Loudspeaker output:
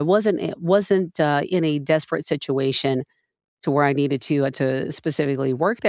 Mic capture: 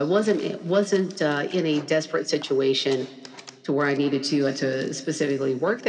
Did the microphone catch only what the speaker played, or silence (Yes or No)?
Yes